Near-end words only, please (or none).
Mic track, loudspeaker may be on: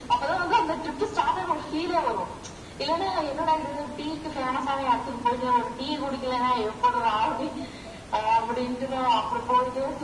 none